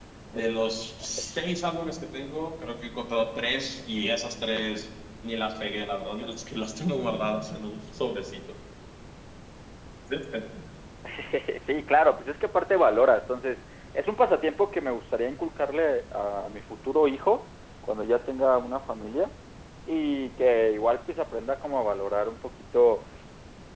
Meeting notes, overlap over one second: none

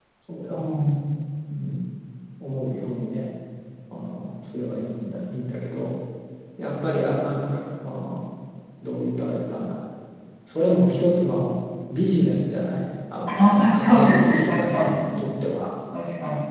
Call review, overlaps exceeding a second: present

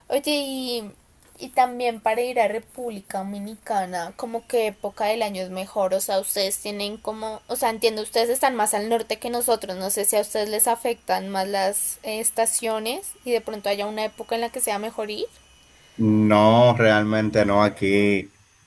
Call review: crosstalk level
none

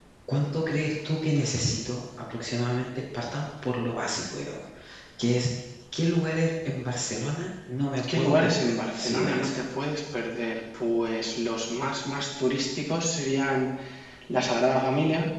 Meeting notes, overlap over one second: present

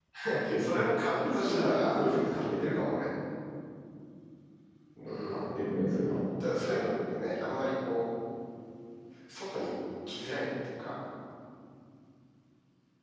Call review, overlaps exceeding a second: present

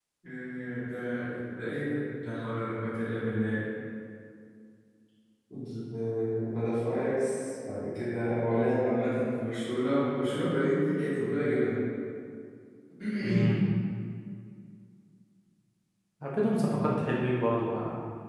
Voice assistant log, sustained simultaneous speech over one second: none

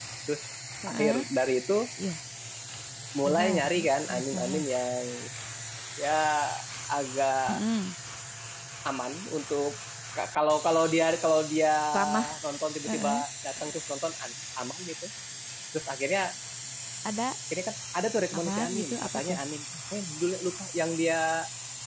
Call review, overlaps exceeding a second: present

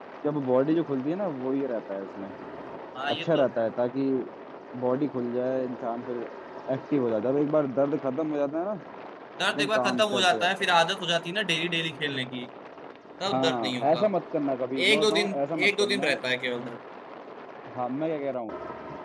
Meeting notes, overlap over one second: present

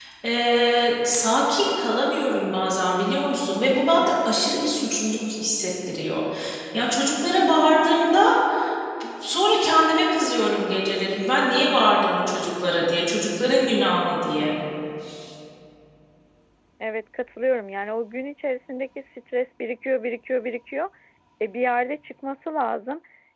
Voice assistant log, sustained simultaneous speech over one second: none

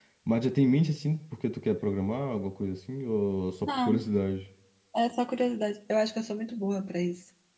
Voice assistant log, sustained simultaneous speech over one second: none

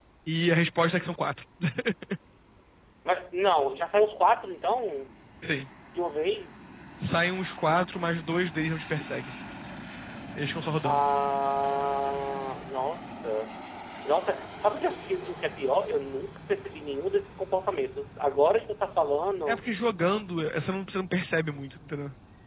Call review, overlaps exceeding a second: none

